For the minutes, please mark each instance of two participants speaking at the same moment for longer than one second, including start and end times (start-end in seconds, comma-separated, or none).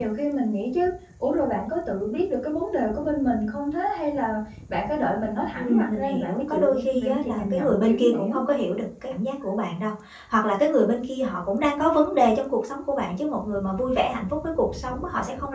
5.6-8.4